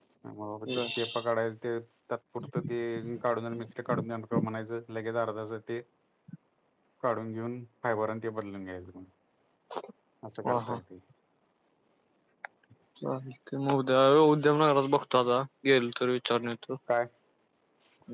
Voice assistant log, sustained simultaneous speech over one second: none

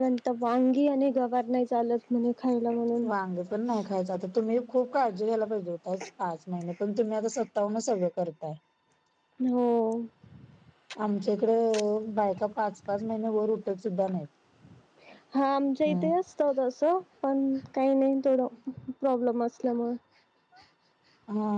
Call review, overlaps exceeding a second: none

